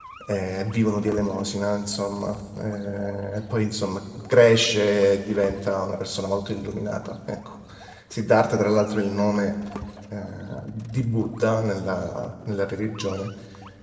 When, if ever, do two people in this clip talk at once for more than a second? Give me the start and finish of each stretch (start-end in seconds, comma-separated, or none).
none